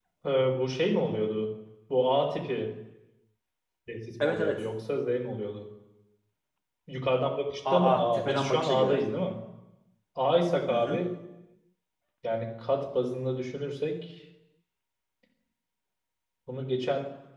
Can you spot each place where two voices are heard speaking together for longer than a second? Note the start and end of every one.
7.7-9.0

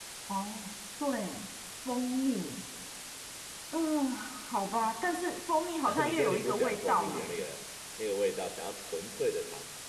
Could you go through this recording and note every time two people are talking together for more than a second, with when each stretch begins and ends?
5.9-7.2

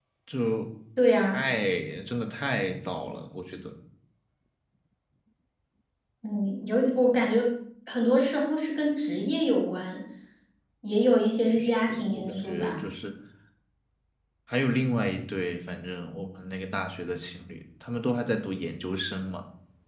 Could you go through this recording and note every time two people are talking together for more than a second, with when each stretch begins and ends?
11.6-12.8

